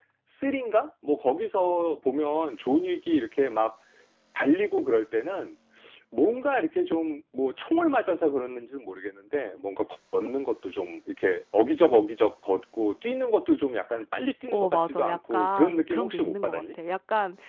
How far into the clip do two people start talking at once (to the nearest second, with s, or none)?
14 s